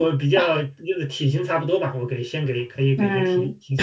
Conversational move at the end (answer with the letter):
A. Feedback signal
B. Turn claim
B